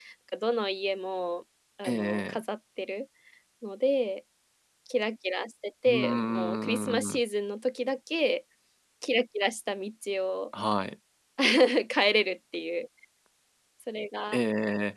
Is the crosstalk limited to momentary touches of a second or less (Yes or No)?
No